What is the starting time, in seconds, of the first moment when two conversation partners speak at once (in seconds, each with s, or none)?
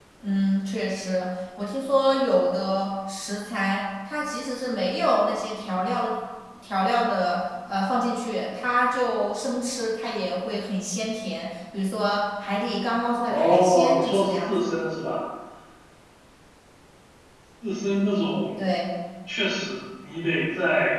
13.3 s